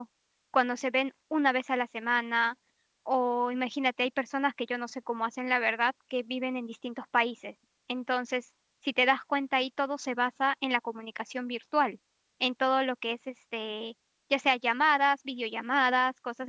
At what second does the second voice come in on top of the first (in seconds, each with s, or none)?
none